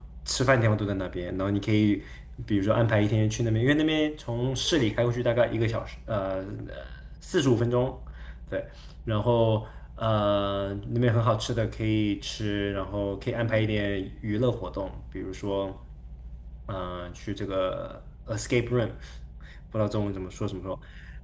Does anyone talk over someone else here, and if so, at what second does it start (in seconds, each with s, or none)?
none